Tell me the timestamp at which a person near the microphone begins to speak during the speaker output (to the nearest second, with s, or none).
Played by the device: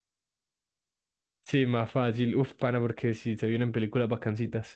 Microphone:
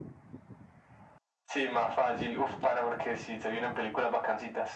none